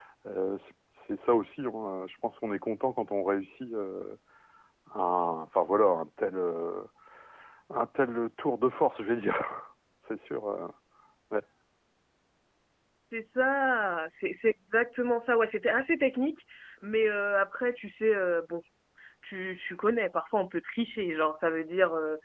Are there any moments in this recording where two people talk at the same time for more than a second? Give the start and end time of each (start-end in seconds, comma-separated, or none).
none